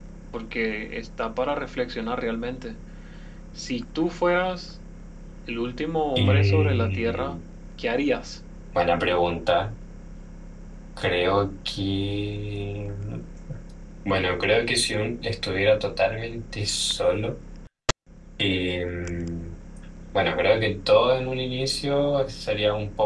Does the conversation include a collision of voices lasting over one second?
Yes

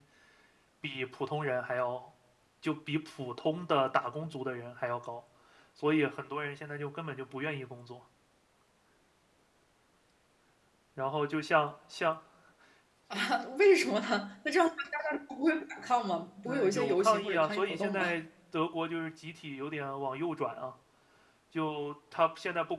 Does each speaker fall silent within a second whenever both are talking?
No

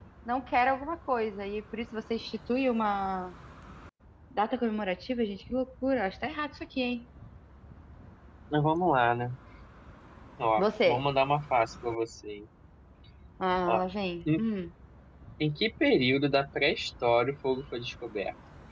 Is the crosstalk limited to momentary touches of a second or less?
Yes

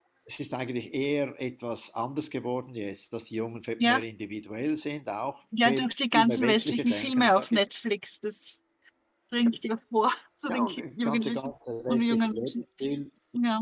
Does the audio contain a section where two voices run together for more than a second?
Yes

